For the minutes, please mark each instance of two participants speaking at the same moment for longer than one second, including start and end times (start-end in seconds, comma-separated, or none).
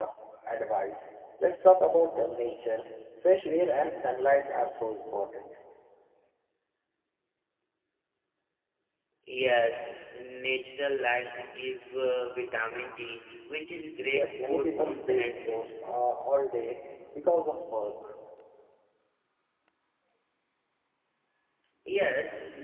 14.1-15.6